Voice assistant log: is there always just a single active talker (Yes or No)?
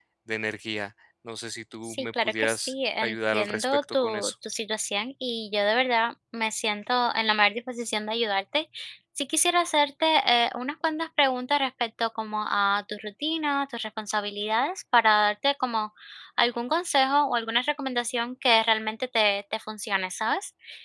No